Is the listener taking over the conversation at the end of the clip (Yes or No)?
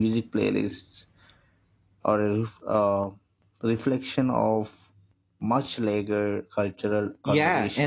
Yes